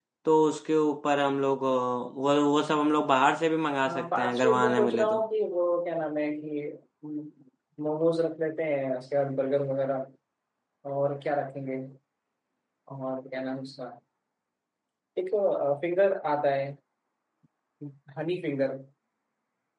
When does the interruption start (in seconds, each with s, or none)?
3.9 s